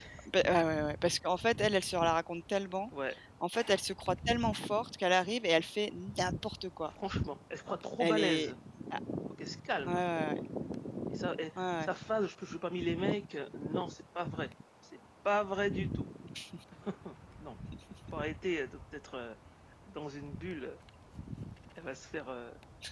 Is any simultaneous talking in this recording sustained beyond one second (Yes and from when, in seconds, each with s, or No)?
No